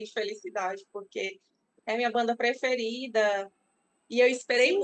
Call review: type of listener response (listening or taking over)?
taking over